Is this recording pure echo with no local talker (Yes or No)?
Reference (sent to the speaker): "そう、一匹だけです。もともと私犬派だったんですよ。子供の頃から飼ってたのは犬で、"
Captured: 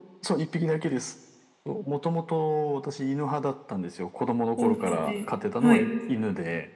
No